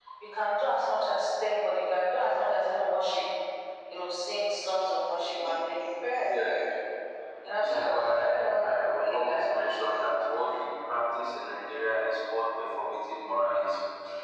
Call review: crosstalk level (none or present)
present